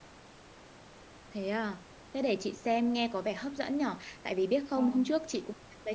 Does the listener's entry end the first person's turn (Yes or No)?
No